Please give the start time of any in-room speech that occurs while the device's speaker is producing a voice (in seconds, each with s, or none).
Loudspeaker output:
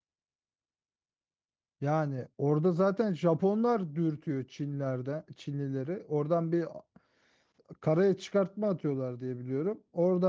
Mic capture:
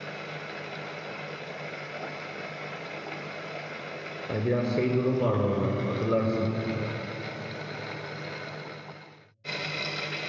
4.3 s